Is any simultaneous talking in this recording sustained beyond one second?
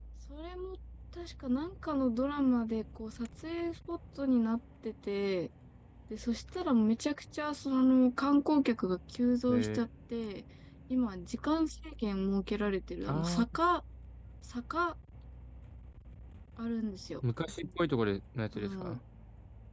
No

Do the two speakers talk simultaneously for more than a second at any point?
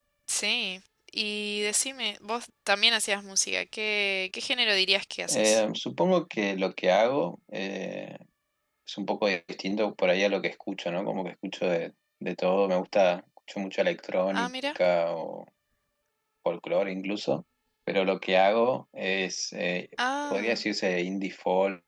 No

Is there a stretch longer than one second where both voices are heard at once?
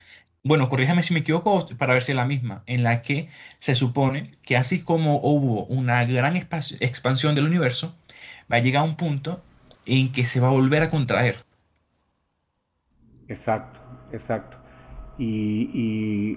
No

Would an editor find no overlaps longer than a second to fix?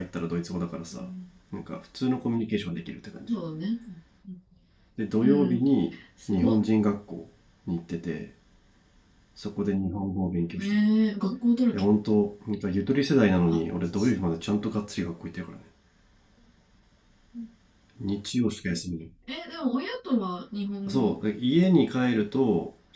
Yes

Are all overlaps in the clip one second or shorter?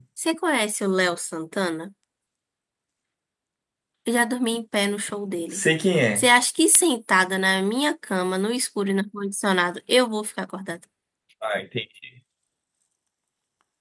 Yes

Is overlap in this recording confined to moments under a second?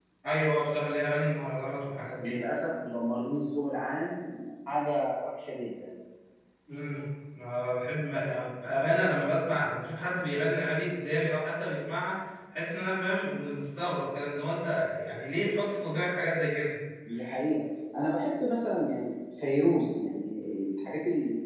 Yes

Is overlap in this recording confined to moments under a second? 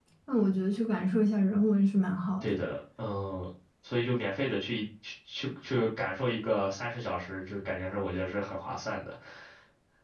Yes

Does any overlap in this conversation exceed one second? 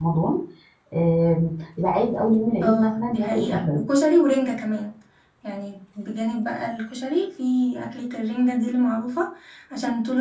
Yes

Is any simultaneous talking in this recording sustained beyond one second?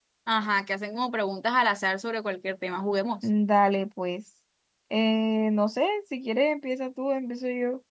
No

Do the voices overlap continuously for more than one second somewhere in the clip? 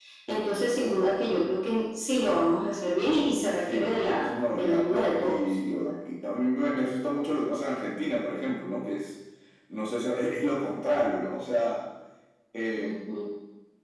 Yes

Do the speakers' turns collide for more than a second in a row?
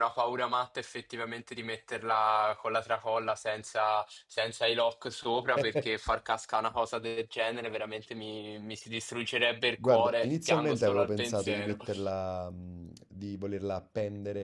Yes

